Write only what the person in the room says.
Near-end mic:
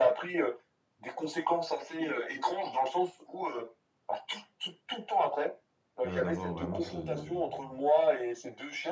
heu, d'avoir vraiment ce

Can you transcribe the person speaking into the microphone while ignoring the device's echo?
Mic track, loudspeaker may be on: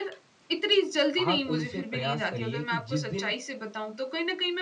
आप उनसे प्रयास करिए कि जिस दिन

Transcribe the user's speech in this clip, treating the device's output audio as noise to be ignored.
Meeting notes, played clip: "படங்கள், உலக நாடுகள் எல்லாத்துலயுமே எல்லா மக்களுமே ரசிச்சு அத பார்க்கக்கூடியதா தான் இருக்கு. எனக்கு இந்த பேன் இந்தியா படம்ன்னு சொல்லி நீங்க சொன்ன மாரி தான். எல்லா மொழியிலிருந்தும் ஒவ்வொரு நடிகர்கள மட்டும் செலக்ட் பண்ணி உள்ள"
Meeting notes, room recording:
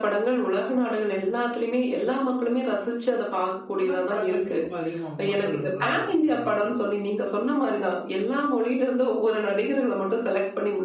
இந்த மாரி படங்கள இப்போ ரொம்ப அதிகமா மக்கள் விரும்புறாங்க பார்த்துருக்கீங்களா?

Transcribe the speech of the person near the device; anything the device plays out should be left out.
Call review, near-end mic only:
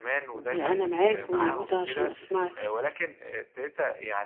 وأنا معاك وموجودة عشان أسمعك،

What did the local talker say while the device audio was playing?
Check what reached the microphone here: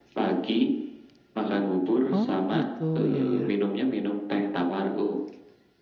Oh gitu, ya ya,

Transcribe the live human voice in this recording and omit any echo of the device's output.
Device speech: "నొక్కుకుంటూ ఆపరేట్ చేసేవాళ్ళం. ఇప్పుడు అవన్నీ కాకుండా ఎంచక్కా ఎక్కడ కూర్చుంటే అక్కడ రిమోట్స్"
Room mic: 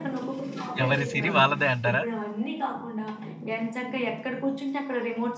ఎవరి సిరి వాళ్ళదే అంటారా?

